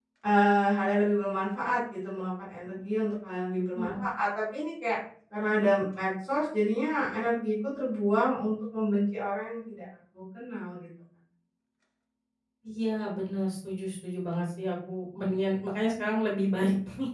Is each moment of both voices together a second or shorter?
Yes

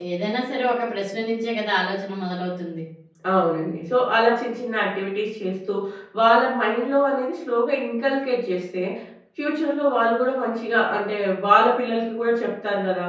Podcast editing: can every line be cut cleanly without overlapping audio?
Yes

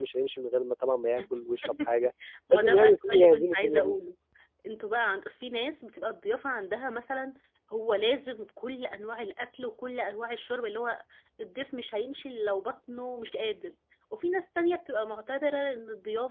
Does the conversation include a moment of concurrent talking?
Yes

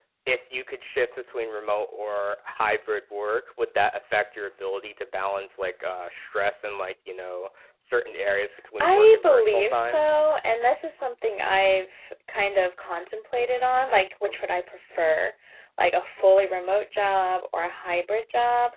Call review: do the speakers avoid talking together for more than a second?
No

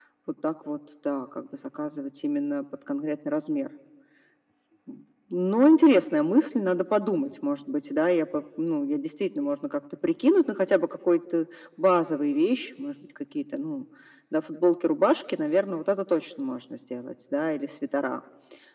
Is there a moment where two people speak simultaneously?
No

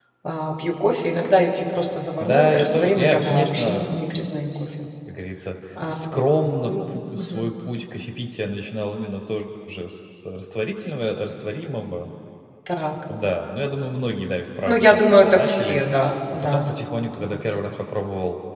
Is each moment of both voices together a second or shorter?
No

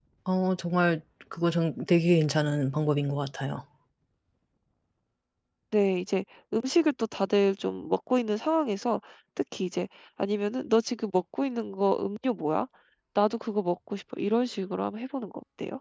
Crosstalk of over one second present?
No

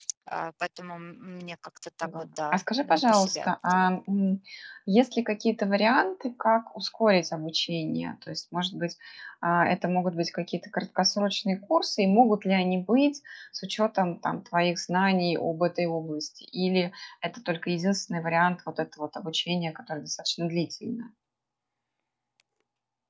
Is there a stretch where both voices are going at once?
Yes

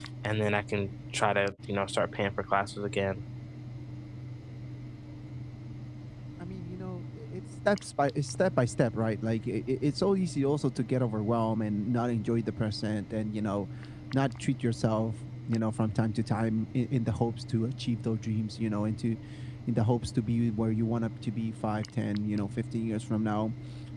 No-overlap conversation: Yes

